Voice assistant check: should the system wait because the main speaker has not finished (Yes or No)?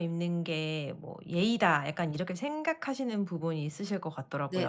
No